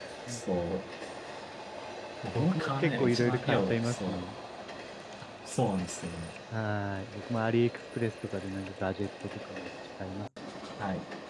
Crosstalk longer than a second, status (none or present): present